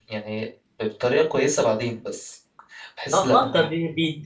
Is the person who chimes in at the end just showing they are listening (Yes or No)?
No